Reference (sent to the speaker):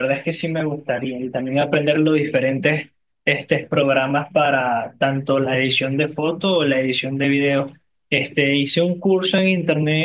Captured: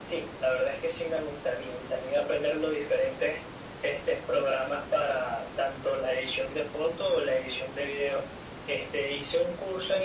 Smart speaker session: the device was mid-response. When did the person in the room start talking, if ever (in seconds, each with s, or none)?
none